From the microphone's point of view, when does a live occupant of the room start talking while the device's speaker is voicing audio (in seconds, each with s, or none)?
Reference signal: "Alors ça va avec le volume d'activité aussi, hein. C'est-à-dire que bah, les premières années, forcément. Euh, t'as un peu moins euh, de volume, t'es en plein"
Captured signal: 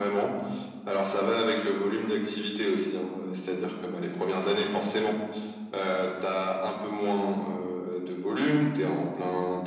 none